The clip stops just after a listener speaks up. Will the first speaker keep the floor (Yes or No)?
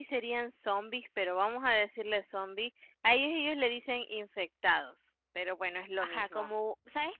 No